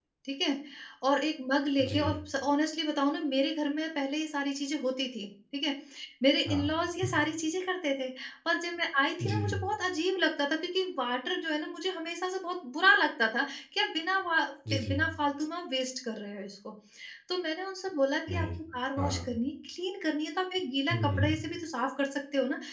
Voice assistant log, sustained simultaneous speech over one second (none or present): none